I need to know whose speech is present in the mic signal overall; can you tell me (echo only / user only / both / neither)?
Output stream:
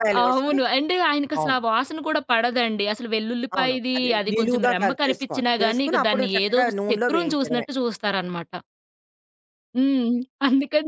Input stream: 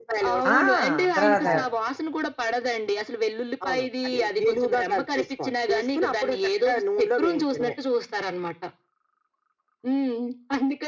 both